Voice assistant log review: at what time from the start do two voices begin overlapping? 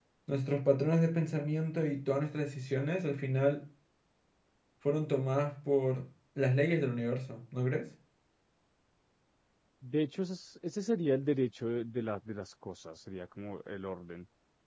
none

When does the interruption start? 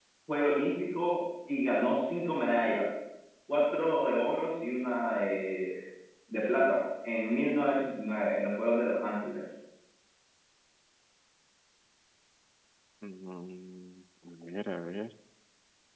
none

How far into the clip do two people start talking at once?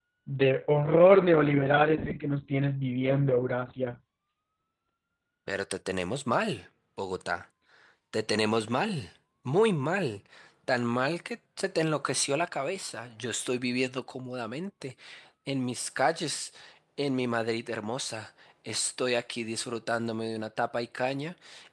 none

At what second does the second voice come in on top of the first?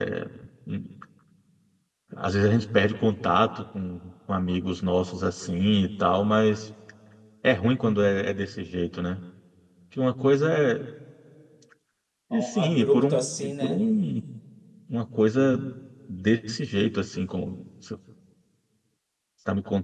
12.3 s

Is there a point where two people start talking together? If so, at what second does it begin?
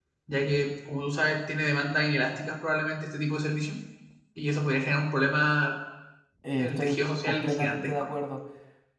6.6 s

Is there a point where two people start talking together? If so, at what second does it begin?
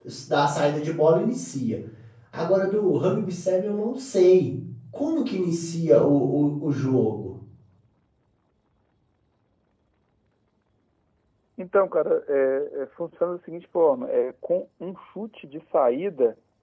none

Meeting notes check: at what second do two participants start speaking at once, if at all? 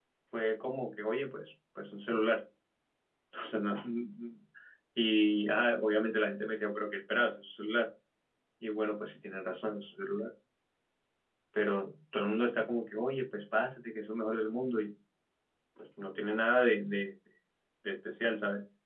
none

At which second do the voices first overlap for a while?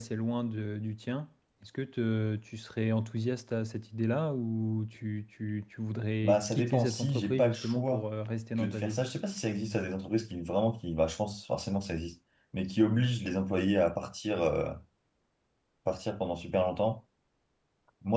6.2 s

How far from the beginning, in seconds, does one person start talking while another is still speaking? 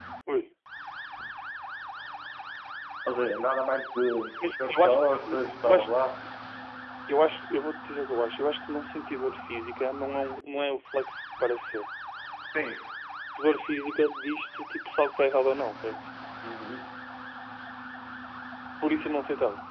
4.6 s

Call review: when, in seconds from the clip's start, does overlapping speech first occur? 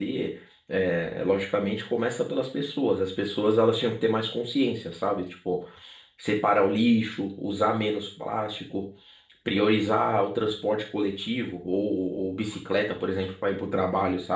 none

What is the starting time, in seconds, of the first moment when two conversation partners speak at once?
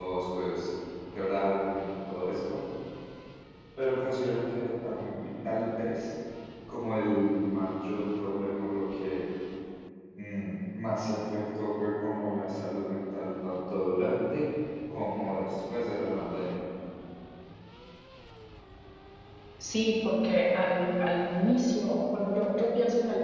none

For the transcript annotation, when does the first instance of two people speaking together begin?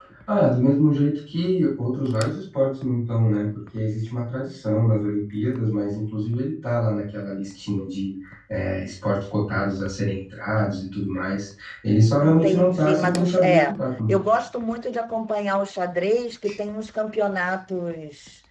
12.2 s

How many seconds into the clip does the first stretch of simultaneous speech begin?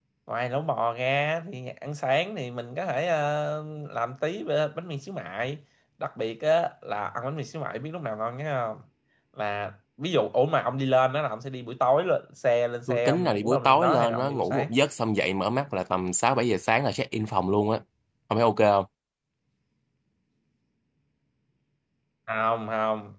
12.9 s

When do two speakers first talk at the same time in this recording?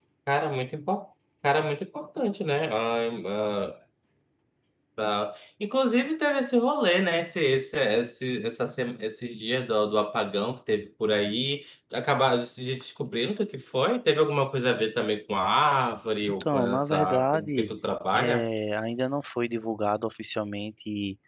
16.3 s

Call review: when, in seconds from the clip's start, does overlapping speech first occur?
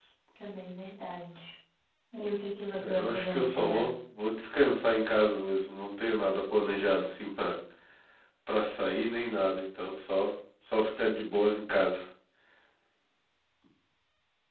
2.7 s

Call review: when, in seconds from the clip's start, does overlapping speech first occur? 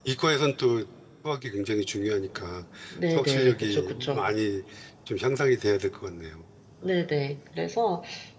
3.1 s

